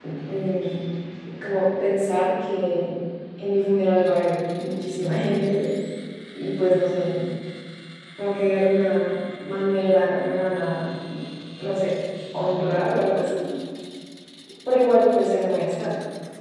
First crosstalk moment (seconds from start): none

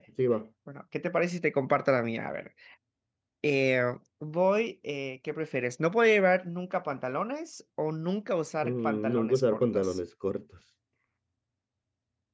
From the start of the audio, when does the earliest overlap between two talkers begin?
8.6 s

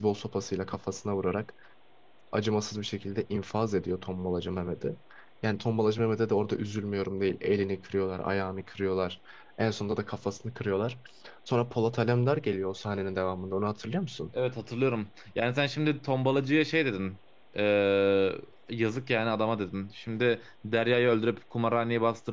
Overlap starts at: none

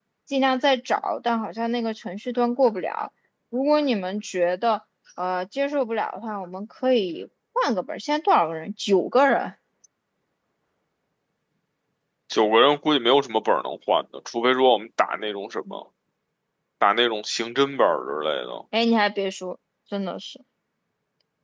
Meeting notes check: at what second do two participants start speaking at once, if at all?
none

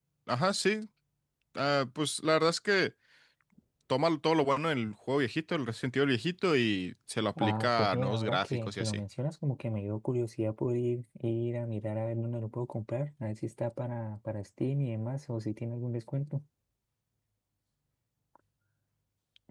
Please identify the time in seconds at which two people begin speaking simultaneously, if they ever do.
7.4 s

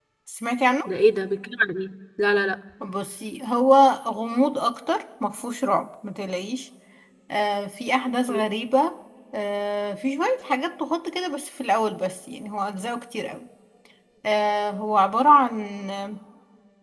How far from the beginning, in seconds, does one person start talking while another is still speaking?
none

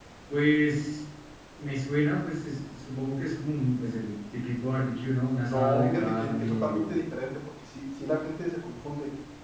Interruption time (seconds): 5.5 s

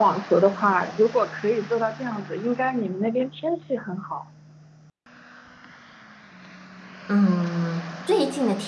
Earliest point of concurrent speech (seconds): none

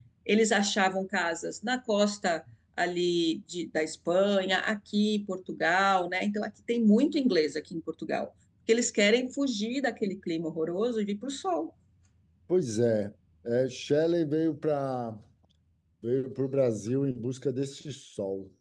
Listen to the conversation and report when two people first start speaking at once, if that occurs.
none

